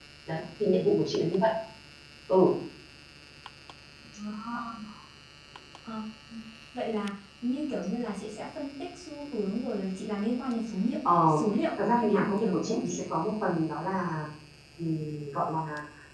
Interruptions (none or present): present